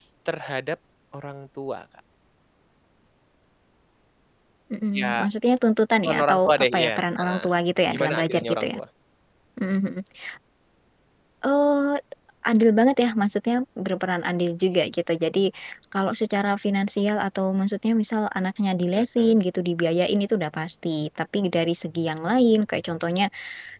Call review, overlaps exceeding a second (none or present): present